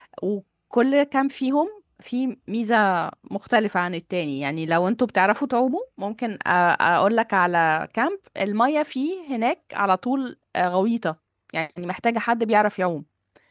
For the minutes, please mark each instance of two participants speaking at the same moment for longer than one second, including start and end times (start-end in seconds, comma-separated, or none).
none